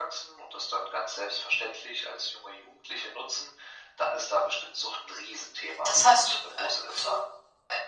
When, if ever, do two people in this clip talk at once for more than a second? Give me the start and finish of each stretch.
5.8-7.2

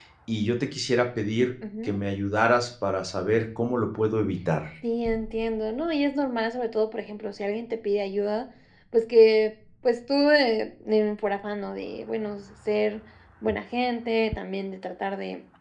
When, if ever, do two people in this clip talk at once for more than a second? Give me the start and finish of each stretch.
none

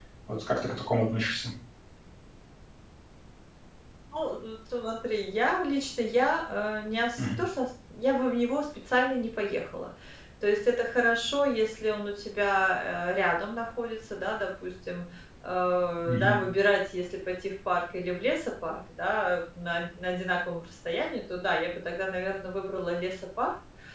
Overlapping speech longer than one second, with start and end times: none

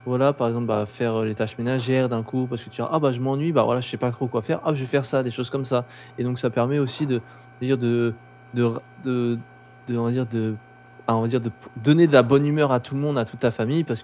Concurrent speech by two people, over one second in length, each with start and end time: none

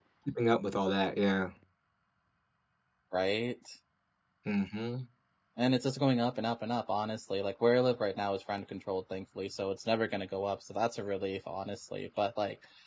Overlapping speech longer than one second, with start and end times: none

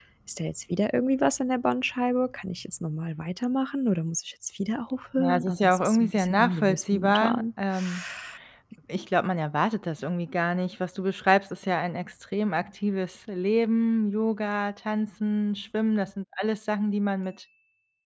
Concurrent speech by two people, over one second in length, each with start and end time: 5.2-7.4

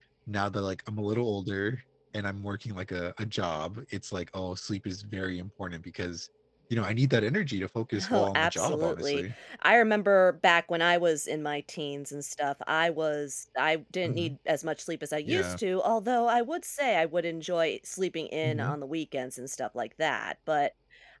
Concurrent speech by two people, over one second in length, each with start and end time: 8.0-9.2

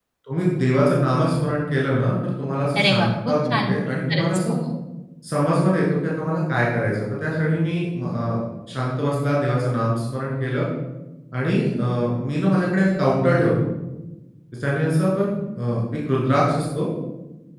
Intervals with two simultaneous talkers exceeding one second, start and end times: 2.8-4.5

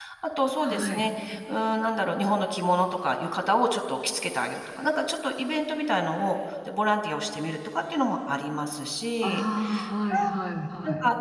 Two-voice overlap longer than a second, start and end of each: none

